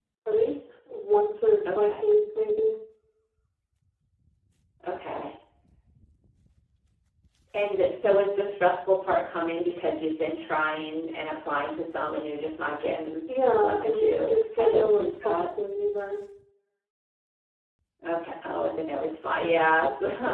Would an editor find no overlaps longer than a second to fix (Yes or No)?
No